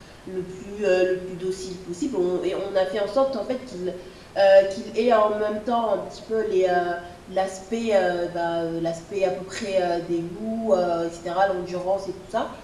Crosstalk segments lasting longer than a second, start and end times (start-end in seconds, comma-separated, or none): none